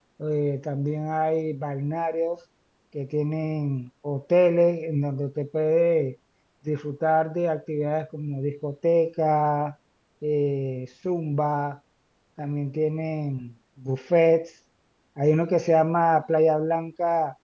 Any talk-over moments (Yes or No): No